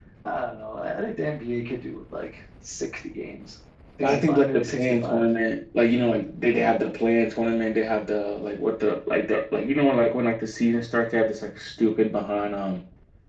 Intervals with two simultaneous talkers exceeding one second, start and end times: 4.0-5.2

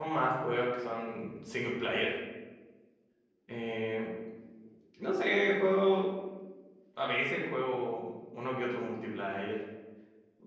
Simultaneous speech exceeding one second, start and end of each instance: none

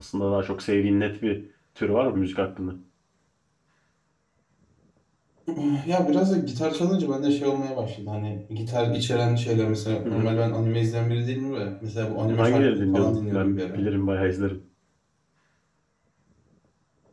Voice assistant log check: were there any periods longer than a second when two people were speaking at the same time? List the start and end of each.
12.3-13.8

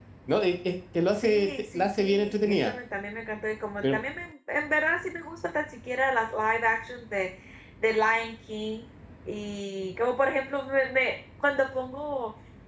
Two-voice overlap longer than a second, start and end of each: 1.1-2.7

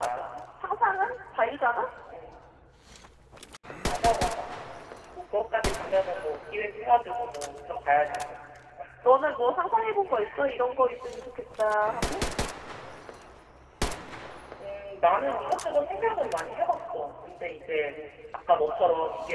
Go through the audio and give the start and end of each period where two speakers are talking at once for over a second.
none

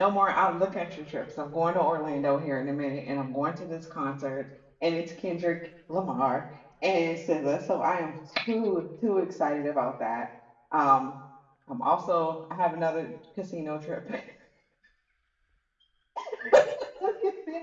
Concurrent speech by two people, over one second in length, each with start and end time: none

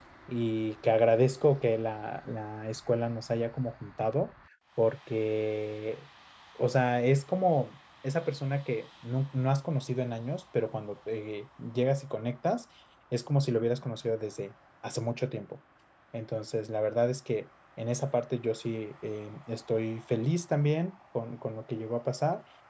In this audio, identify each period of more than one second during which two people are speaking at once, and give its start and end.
none

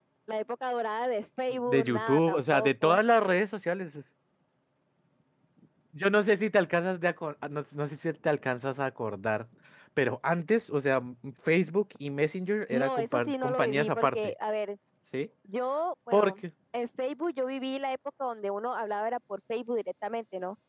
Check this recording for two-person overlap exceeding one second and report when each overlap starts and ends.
1.7-3.0, 12.7-14.3

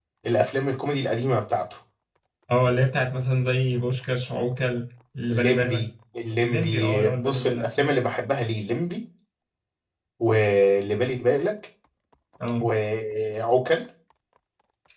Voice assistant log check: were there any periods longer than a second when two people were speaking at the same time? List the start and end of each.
6.4-7.7

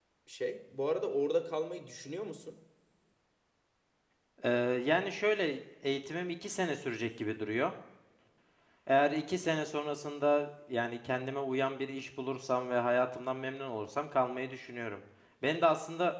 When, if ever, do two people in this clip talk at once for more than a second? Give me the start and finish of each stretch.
none

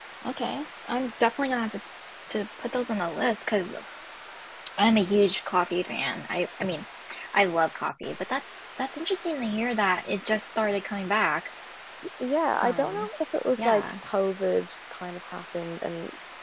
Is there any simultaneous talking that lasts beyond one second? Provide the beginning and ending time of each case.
none

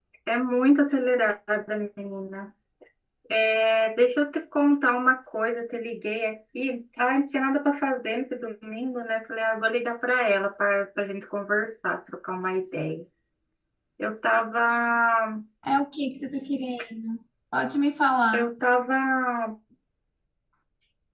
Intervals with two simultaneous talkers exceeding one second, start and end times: none

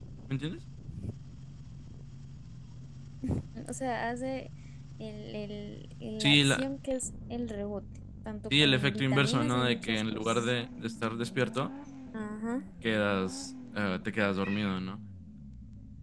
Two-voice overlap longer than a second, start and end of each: 8.5-10.5

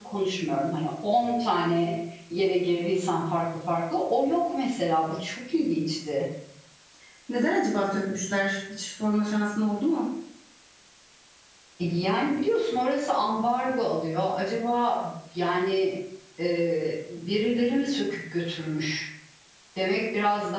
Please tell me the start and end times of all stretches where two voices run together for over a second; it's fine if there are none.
none

